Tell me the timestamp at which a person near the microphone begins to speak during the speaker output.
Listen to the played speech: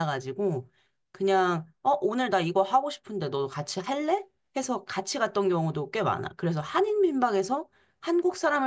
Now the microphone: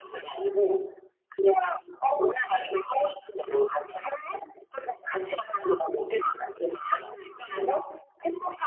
none

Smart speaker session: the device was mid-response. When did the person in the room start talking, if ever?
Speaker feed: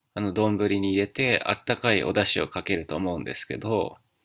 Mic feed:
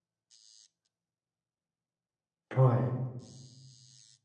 3 s

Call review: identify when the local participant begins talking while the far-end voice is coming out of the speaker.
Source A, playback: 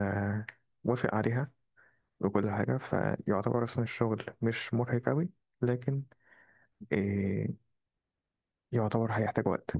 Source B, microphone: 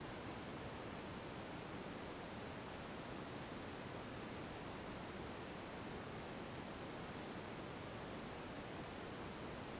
none

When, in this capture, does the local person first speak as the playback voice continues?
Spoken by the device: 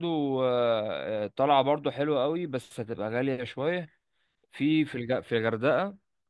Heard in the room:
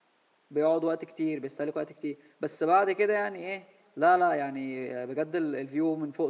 1 s

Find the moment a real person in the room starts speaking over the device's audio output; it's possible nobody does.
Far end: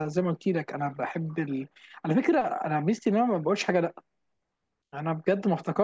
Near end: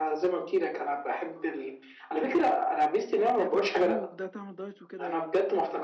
3 s

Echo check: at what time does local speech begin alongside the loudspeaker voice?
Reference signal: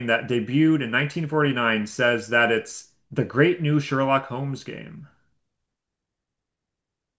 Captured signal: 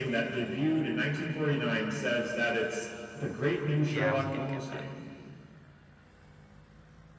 4 s

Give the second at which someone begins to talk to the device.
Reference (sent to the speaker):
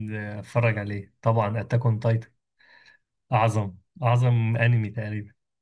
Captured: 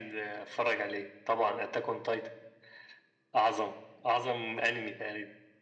none

